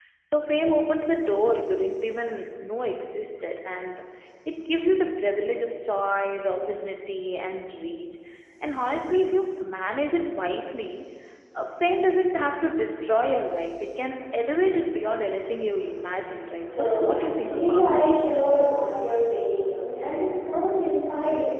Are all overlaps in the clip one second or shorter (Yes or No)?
No